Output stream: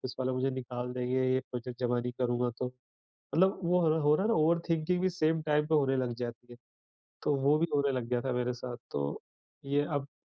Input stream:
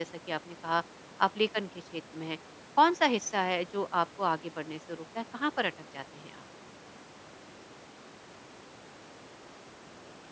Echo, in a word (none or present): none